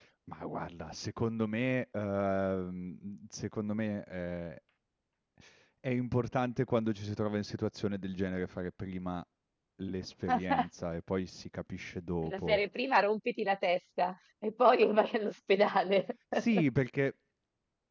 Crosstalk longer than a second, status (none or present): none